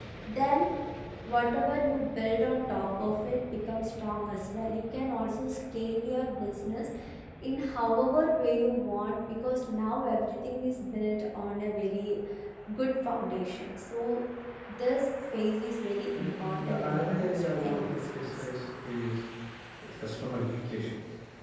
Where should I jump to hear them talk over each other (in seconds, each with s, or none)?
16.1 s